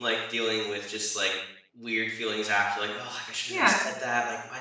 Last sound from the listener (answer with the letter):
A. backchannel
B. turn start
A